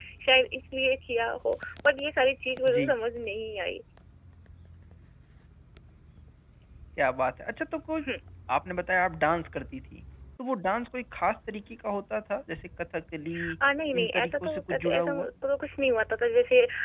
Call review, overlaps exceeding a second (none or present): present